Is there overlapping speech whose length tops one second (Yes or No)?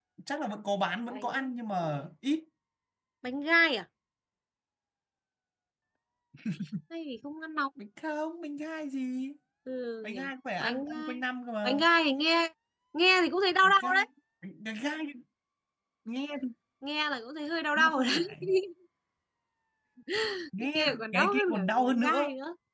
Yes